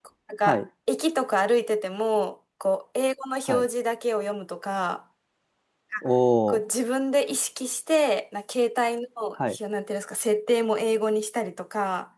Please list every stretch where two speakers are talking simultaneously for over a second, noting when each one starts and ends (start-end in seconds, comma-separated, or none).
none